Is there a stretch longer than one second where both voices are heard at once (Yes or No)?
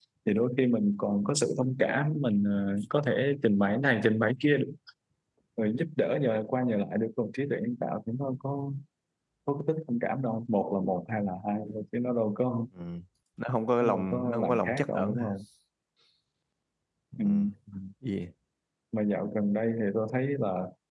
Yes